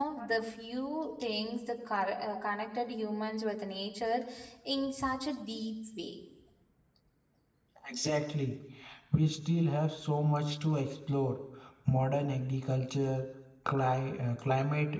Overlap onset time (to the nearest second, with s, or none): none